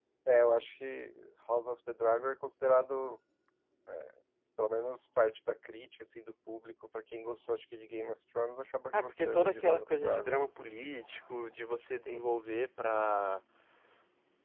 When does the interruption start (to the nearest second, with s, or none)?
9 s